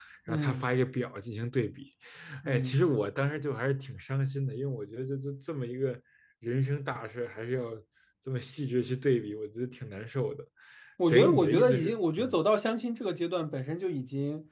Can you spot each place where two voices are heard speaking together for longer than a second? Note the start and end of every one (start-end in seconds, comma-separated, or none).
11.1-12.3